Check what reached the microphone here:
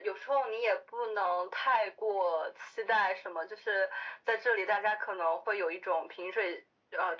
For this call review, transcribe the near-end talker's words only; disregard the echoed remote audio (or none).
none